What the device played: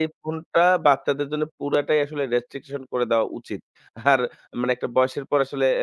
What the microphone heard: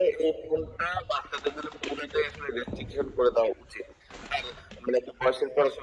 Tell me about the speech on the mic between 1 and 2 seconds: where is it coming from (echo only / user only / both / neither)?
echo only